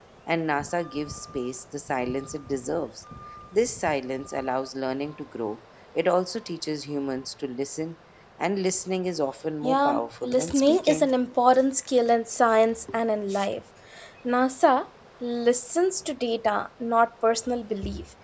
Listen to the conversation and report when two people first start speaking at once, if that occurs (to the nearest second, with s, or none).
10 s